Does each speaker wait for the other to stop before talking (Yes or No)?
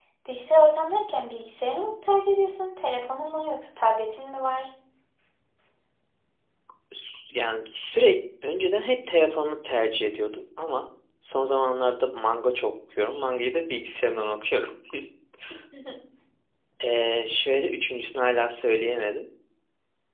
Yes